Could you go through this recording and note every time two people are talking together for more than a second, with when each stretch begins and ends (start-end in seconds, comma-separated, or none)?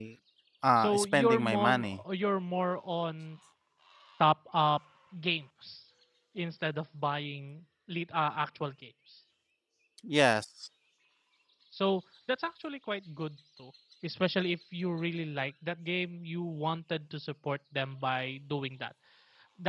0.8-2.0